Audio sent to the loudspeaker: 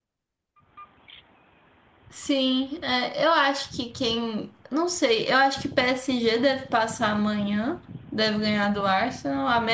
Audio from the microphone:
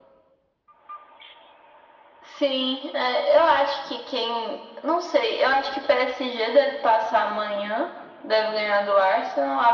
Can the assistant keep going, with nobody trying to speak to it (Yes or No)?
Yes